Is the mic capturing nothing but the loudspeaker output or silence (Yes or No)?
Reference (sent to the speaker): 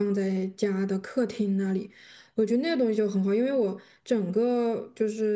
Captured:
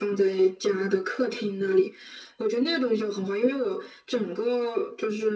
Yes